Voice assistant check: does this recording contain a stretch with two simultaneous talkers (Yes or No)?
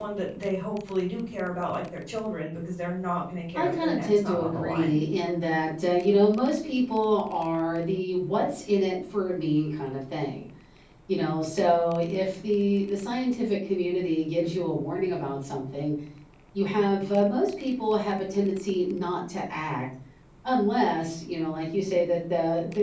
Yes